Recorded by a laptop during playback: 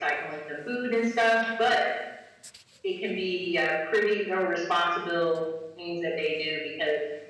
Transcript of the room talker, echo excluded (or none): none